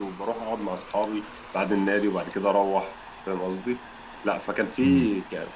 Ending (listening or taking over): listening